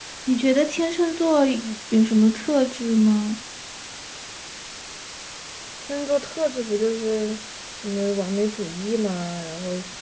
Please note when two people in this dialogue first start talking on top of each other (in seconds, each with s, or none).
none